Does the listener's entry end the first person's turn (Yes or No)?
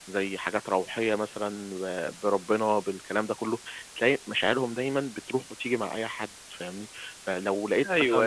Yes